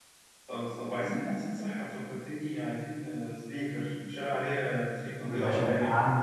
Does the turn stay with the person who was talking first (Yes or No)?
No